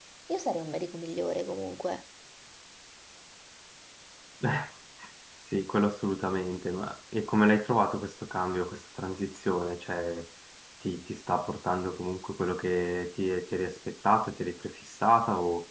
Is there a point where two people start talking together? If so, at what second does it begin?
none

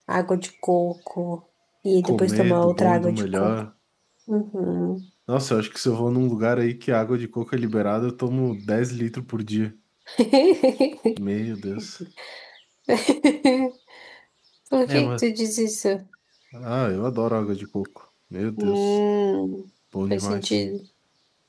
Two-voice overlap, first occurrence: 2.0 s

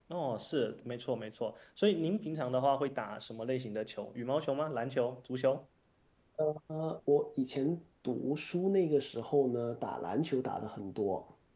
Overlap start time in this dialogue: none

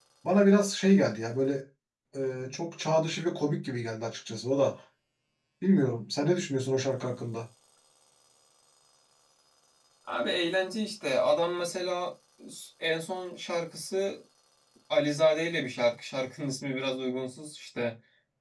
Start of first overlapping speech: none

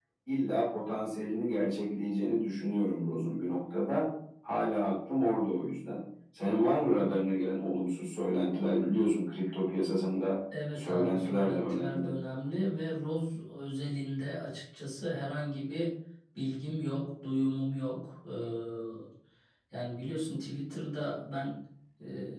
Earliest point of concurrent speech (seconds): 10.5 s

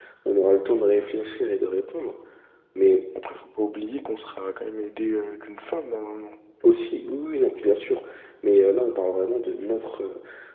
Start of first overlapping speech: none

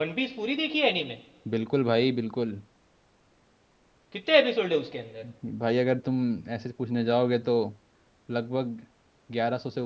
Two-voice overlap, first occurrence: none

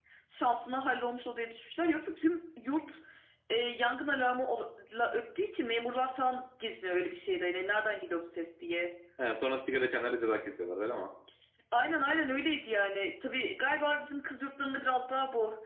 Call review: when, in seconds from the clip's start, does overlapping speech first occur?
none

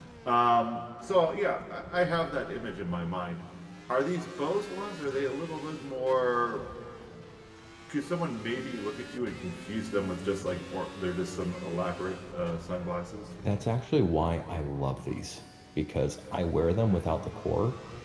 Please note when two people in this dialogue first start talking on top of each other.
none

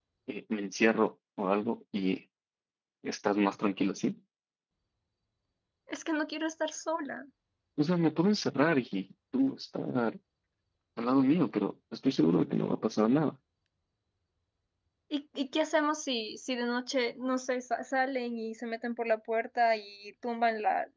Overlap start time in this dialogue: none

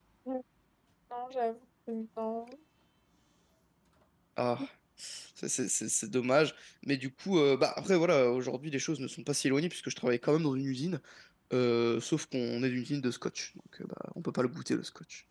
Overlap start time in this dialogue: none

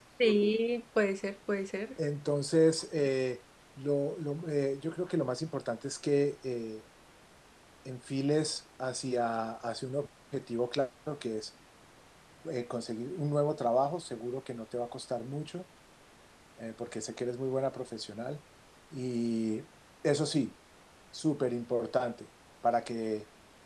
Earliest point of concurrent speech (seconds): none

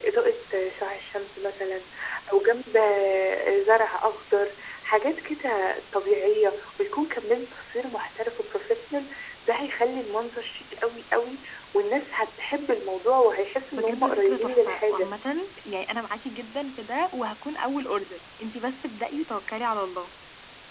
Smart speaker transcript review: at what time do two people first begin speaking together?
13.8 s

